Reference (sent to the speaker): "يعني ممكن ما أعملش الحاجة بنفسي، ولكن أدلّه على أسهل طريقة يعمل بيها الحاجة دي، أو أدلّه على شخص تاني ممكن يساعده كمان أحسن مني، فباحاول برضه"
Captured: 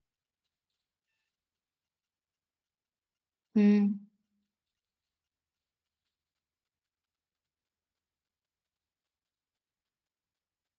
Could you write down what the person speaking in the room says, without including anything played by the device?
إمم.

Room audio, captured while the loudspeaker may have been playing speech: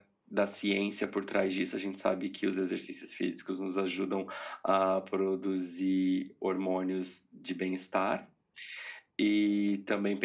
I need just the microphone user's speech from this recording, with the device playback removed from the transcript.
none

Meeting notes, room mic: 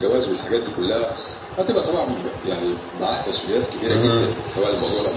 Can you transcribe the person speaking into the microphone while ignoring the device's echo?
اهم،

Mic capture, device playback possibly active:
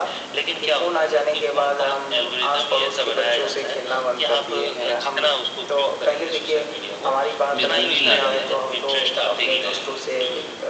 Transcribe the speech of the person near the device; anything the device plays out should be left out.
में दूरी ला दिया है

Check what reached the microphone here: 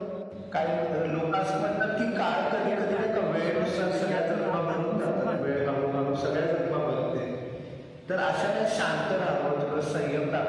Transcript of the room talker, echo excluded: आणि कुठेतरी आपला आत्मविश्वास आणि आत्म आत्मसन्मान

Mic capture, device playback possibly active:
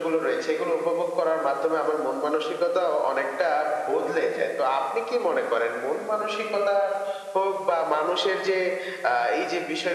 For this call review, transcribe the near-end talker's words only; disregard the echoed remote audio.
none

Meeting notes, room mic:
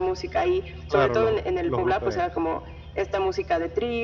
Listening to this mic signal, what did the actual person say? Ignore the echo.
Claro, los los gruperos.

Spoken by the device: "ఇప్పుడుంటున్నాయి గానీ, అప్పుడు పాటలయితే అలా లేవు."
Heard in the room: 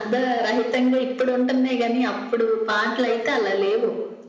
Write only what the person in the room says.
none

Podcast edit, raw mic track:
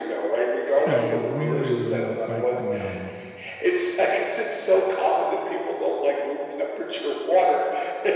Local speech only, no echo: I really, really don't like the, um,

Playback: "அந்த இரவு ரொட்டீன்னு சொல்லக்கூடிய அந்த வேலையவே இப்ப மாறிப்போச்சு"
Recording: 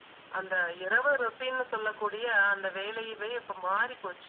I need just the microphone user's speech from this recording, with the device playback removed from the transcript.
none

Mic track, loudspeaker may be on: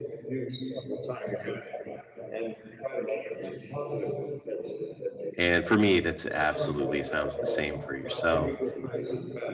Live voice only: And for me, that's absolutely sounds the same for yourself.

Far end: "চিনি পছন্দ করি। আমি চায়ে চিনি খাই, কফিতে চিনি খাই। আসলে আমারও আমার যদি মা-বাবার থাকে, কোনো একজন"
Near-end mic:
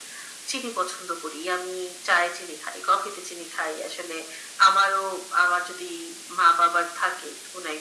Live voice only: none

